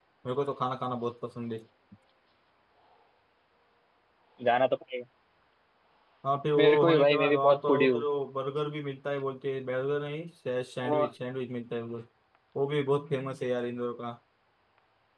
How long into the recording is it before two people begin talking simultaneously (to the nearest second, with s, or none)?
7 s